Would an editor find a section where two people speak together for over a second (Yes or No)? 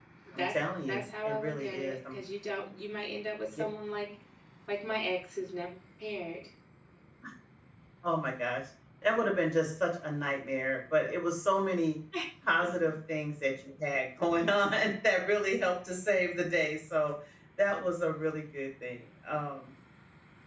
Yes